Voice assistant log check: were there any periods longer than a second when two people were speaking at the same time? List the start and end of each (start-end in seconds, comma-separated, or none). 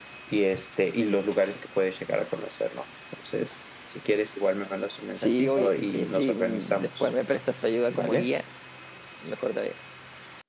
5.2-7.1